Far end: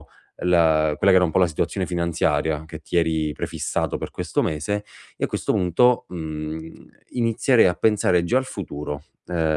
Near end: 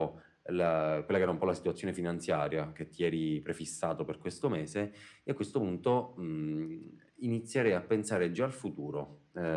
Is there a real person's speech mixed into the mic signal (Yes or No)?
No